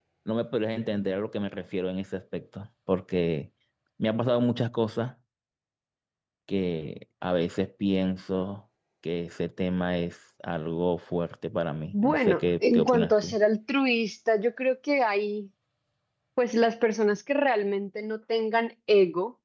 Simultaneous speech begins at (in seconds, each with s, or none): 11.9 s